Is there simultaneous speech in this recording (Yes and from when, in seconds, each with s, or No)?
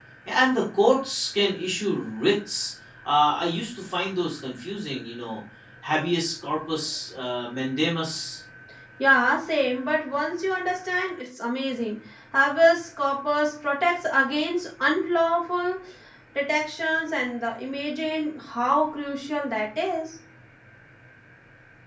No